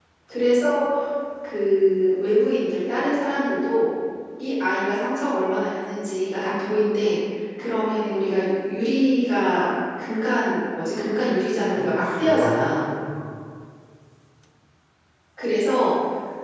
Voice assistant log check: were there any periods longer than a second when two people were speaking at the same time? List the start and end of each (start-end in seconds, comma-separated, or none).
11.6-12.9